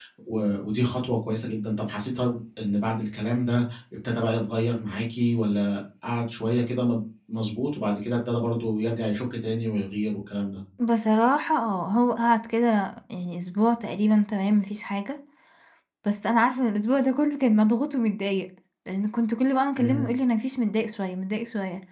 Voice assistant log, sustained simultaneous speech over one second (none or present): none